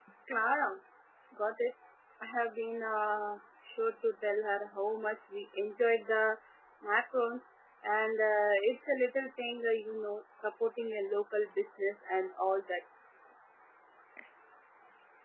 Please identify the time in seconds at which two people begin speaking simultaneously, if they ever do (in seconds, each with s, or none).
none